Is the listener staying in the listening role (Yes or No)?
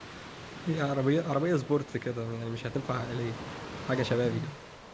No